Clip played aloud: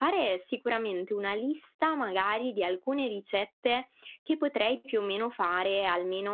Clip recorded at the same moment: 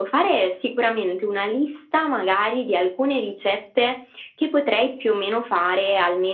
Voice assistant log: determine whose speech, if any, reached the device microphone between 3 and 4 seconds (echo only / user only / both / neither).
echo only